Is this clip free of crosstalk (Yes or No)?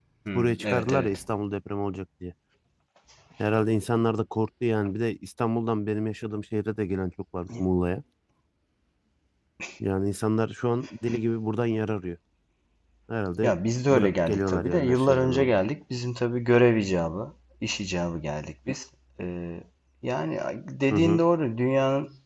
No